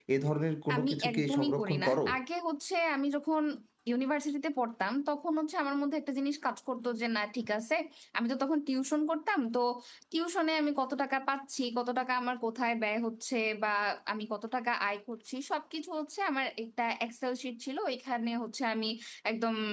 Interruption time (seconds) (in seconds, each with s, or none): 0.7 s